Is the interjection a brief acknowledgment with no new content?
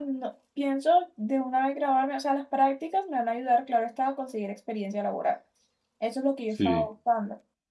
Yes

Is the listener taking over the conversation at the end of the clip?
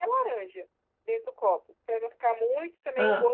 No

